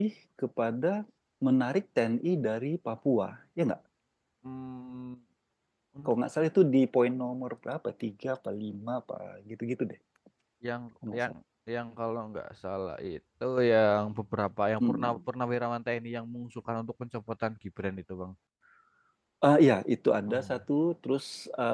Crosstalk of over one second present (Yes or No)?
No